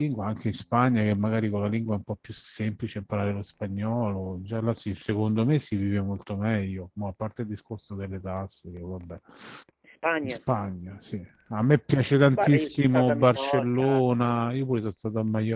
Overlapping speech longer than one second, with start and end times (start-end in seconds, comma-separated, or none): 12.4-14.0